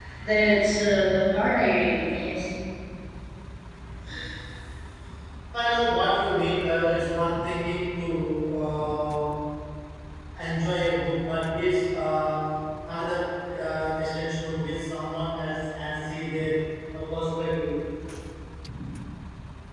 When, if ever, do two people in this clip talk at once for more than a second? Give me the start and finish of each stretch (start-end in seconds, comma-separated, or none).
none